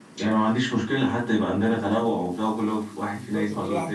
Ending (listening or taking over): taking over